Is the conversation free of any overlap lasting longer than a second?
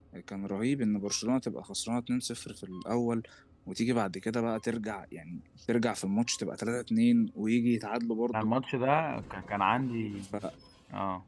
Yes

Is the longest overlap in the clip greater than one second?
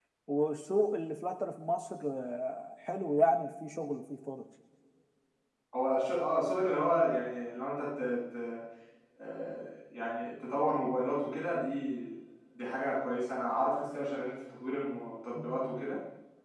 No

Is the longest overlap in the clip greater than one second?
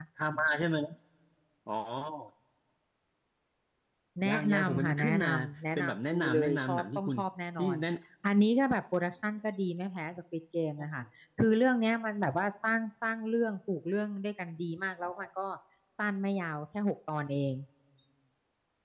Yes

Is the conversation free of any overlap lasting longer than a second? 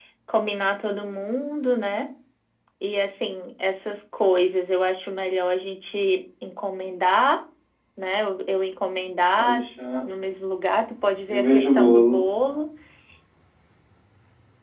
No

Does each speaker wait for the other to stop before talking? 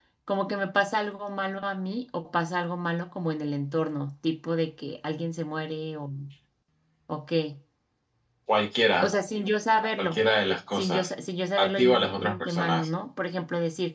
No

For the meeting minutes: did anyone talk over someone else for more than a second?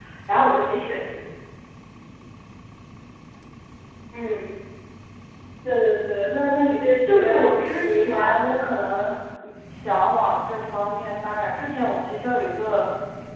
Yes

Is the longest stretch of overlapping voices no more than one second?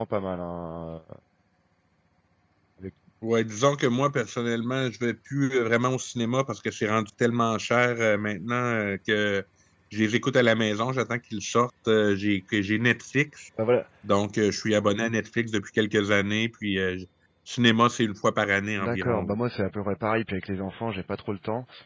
Yes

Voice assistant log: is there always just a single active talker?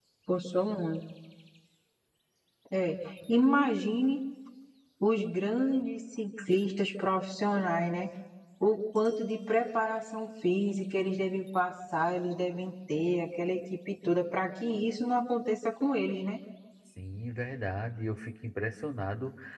Yes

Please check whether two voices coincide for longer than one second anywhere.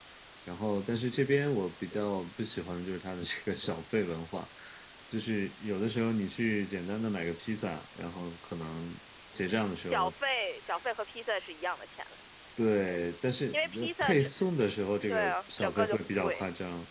Yes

